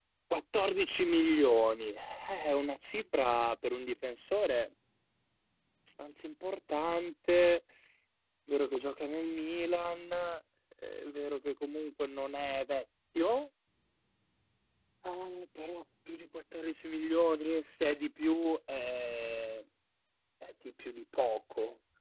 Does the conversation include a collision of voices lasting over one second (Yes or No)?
No